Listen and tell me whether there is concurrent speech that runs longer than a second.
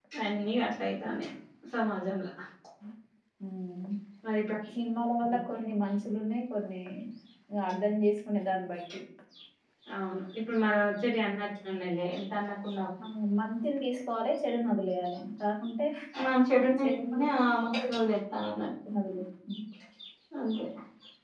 No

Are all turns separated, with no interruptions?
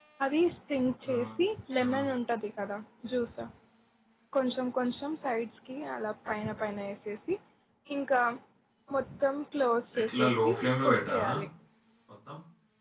No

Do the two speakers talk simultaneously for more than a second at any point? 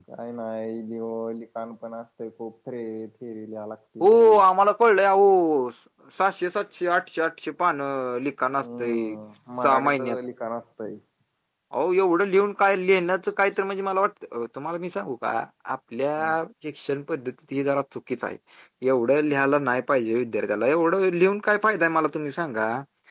No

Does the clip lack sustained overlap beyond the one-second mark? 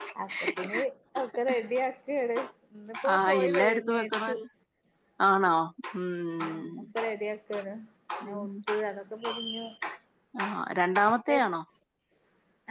No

